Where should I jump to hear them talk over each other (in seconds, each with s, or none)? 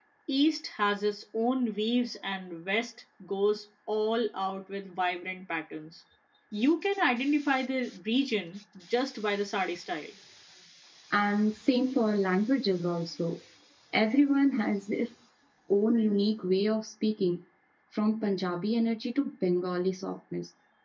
none